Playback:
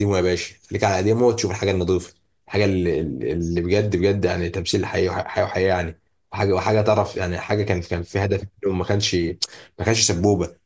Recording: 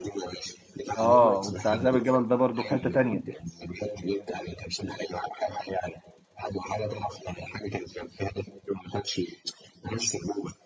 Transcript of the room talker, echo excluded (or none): اه وبتاع ذئب الجبل ده برضو في حته تانيه